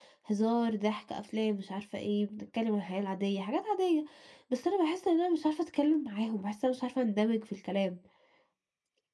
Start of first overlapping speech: none

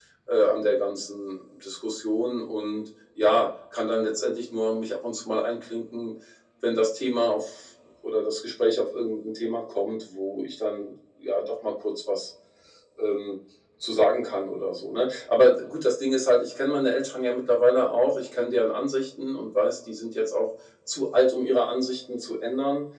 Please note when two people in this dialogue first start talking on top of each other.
none

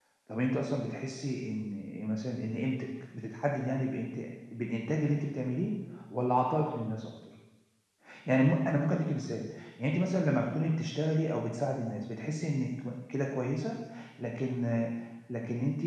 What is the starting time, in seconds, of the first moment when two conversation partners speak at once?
none

